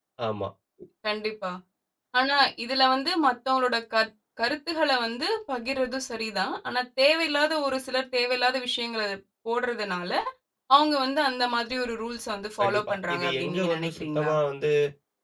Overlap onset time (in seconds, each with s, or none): 12.6 s